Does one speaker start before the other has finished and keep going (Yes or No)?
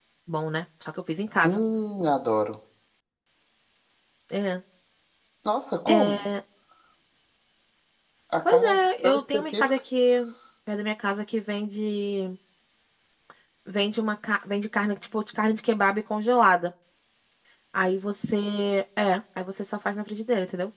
Yes